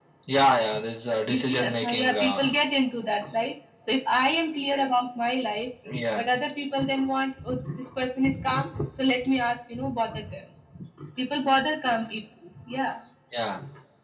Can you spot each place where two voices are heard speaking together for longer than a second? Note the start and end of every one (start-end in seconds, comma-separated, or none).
1.2-2.5